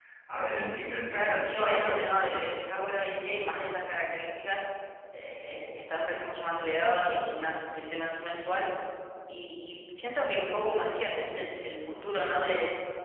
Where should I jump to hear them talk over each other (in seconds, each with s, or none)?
1.1 s